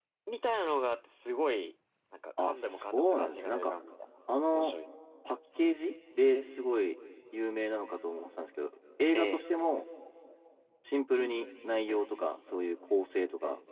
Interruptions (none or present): present